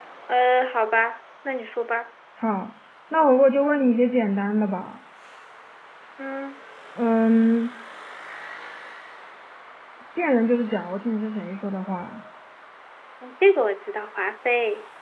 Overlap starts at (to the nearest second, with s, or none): none